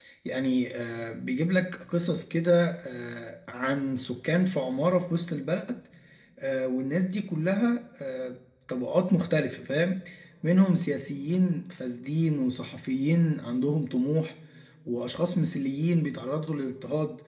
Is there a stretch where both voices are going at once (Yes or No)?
No